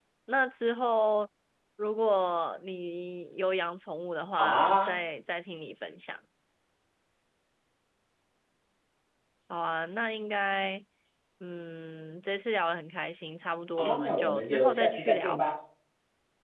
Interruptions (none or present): present